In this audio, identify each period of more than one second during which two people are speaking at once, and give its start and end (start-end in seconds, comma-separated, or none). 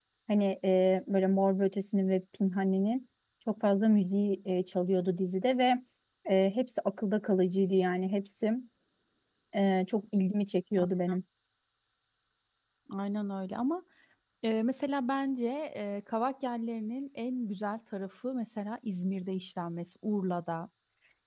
none